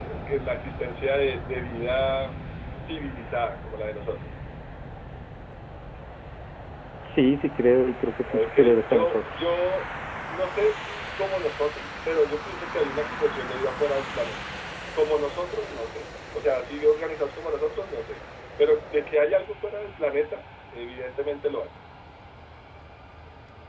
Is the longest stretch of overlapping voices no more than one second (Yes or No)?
No